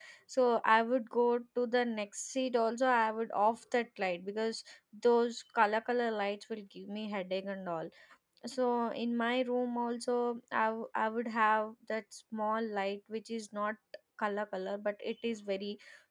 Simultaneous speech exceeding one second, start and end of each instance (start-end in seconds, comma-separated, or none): none